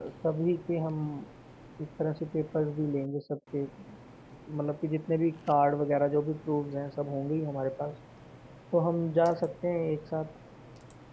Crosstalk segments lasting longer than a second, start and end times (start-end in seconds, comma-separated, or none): none